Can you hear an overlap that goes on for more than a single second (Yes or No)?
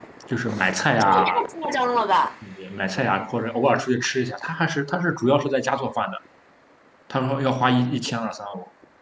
No